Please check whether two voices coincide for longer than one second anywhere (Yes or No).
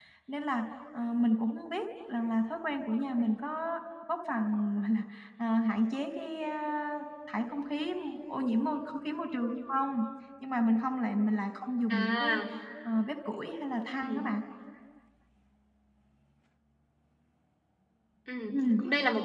No